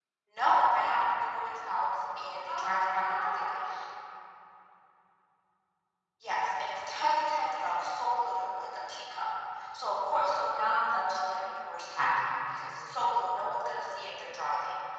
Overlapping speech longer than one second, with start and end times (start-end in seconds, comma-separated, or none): 2.5-3.7